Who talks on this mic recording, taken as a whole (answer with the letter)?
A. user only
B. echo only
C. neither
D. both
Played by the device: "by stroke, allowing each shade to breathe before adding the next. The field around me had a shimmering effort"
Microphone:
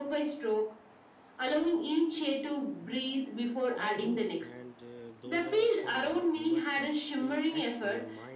D